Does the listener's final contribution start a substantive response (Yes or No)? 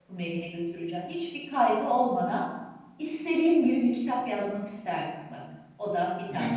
Yes